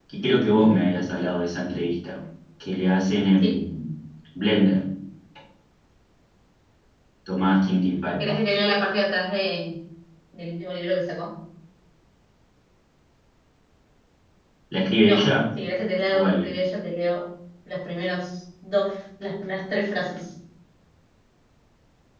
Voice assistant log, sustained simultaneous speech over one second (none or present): none